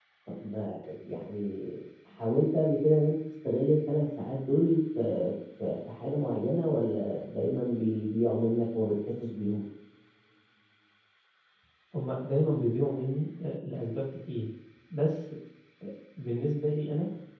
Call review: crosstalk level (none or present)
none